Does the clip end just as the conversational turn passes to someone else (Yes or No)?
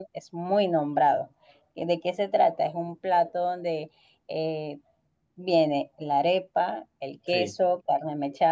No